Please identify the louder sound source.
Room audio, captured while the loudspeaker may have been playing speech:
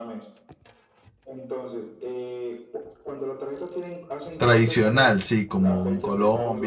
user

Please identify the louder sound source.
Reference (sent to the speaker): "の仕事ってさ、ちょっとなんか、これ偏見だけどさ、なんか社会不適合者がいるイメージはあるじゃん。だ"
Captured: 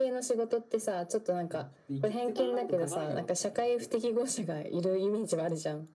echo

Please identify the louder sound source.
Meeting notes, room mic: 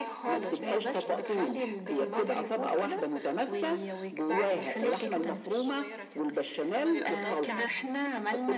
echo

